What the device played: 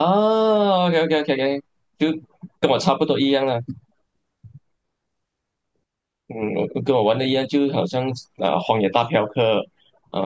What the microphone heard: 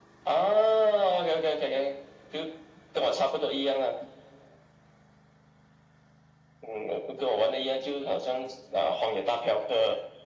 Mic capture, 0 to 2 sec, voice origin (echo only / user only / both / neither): echo only